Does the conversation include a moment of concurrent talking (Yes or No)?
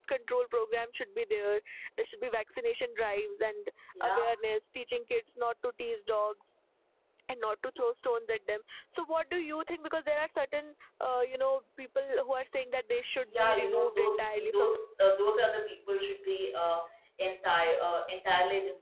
Yes